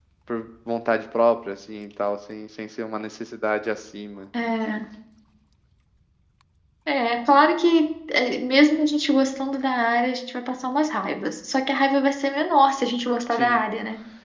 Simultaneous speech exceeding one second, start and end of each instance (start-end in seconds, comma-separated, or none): none